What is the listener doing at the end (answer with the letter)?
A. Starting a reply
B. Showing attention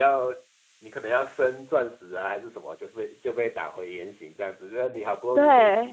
B